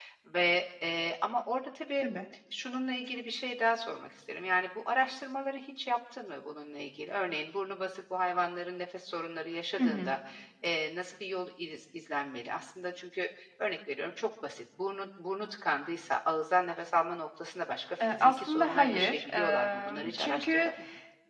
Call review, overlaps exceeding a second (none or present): present